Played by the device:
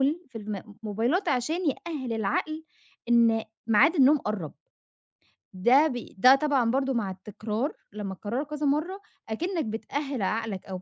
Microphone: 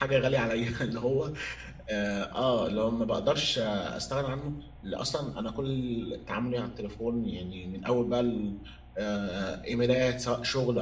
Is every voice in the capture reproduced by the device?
No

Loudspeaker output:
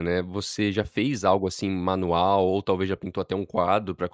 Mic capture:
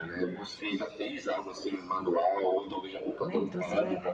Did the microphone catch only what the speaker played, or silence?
No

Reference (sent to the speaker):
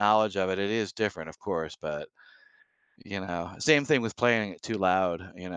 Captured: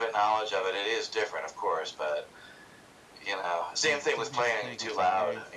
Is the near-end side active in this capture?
Yes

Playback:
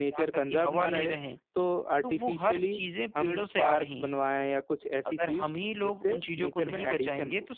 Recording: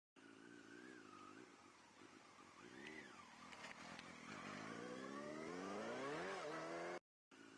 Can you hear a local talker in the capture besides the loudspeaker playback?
No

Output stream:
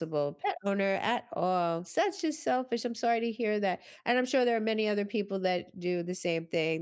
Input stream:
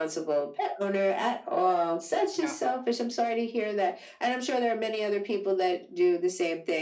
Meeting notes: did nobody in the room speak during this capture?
No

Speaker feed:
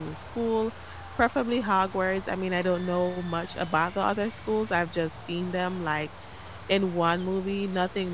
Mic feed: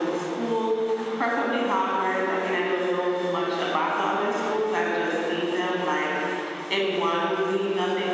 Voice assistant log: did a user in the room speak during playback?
No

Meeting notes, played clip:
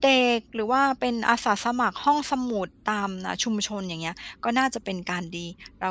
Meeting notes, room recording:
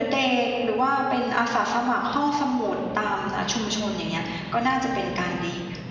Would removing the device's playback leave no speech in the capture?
Yes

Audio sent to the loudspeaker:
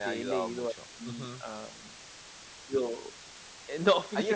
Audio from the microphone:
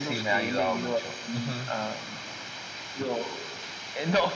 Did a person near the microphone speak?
No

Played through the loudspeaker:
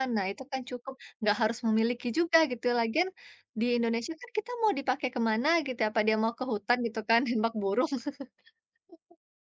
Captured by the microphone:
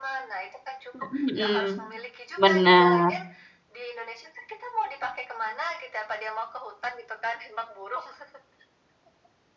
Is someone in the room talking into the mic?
Yes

